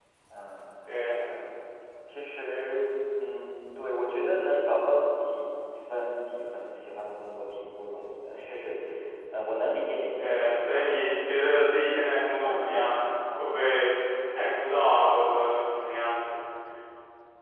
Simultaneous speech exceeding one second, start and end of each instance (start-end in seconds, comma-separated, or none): 10.2-11.8